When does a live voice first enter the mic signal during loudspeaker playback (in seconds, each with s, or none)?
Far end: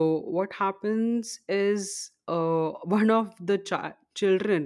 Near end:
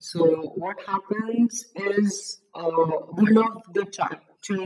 none